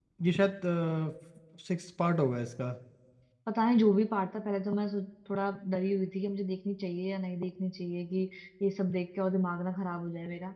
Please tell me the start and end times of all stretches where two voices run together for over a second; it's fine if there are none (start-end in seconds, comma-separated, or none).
none